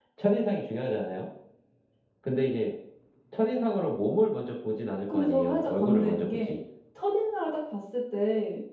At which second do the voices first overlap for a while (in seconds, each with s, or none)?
5.1 s